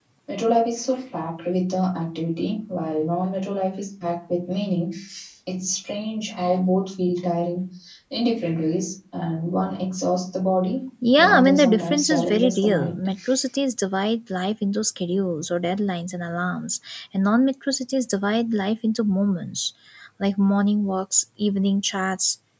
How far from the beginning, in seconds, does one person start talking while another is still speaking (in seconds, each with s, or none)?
11.0 s